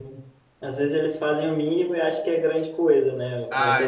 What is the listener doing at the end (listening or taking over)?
listening